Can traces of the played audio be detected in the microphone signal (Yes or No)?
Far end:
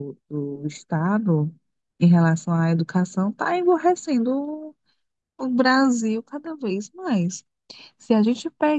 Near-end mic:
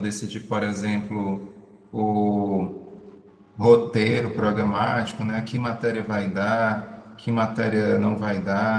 No